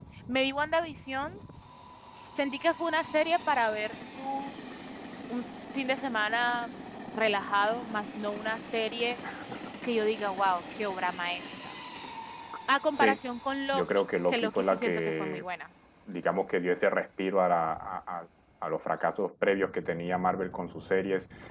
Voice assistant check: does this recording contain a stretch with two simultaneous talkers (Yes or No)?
Yes